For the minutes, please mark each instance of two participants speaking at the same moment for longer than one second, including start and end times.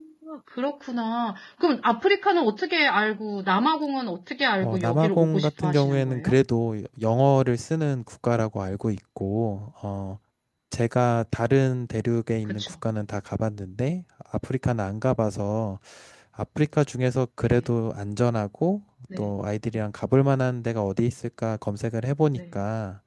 4.6-6.4

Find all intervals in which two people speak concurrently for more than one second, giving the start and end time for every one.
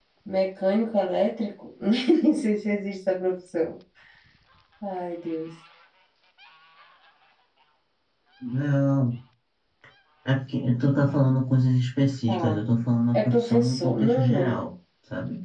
13.1-14.5

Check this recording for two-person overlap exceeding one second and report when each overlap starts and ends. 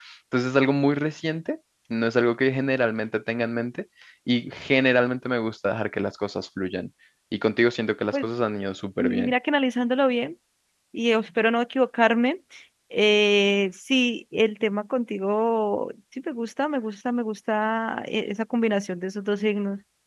none

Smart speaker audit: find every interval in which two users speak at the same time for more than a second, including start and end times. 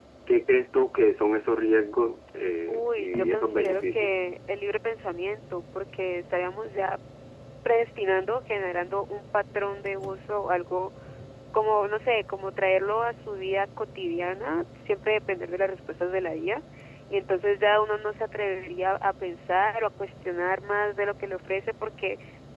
2.7-4.1

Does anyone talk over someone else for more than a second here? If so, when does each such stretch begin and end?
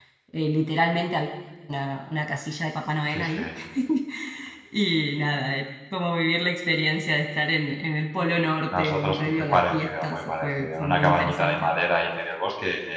8.7-11.7

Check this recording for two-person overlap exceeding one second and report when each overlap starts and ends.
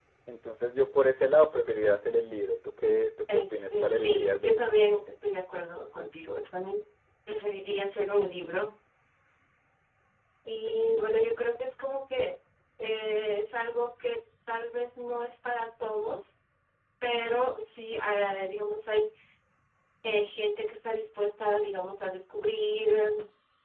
3.3-4.8

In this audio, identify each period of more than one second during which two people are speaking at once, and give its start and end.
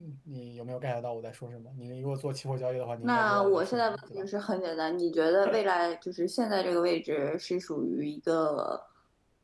3.0-4.3

